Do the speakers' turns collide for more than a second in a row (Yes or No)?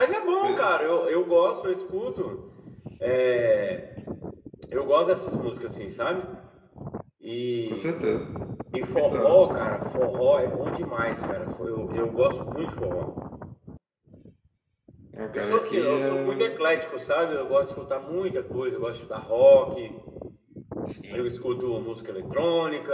Yes